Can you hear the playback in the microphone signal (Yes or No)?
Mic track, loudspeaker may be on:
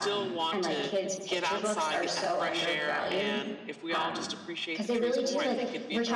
Yes